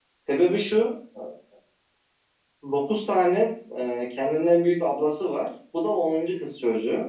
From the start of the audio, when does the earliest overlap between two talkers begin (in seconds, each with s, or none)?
none